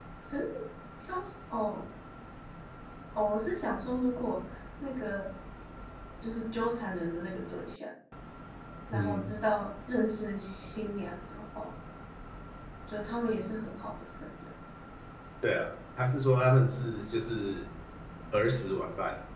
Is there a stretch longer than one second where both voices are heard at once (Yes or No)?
No